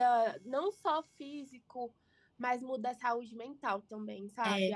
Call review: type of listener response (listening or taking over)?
listening